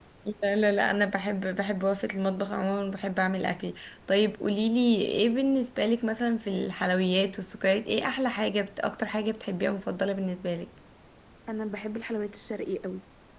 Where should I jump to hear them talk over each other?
none

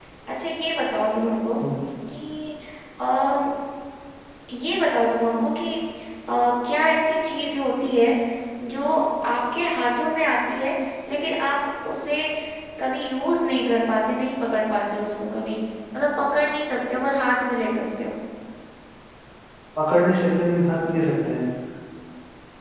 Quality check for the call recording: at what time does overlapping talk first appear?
none

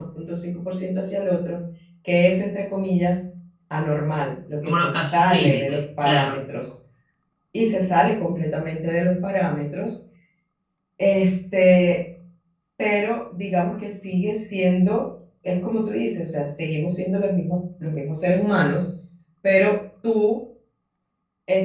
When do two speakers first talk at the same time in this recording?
4.7 s

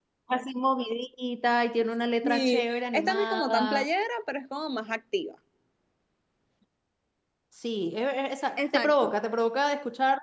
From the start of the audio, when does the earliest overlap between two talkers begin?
2.2 s

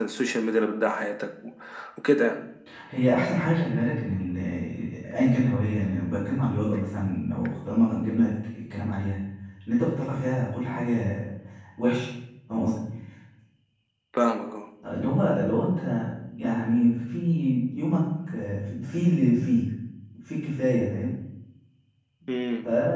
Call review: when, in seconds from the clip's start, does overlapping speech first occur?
none

